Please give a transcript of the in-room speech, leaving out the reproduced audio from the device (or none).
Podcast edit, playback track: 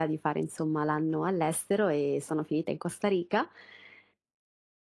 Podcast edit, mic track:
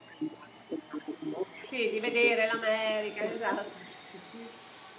Sì, di vedere l'America. Esatto. Sì, sì, sì.